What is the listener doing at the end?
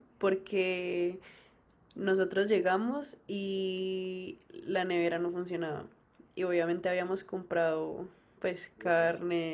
listening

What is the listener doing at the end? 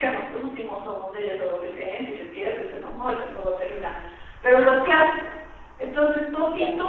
listening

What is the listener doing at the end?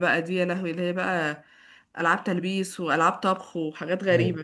taking over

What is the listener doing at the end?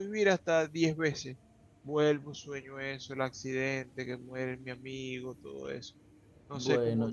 taking over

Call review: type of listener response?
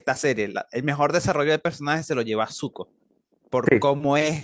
listening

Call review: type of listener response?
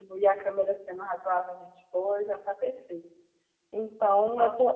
listening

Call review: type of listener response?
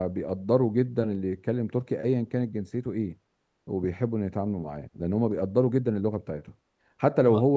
listening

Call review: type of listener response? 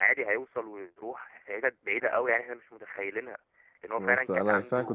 taking over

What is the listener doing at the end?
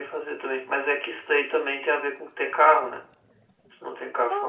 taking over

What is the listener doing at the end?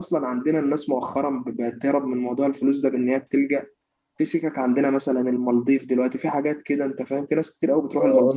taking over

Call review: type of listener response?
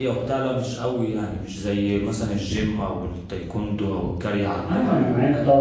taking over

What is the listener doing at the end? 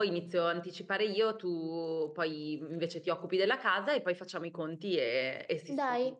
taking over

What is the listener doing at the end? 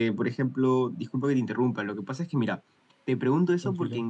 listening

